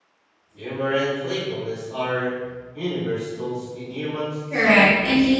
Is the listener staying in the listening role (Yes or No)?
No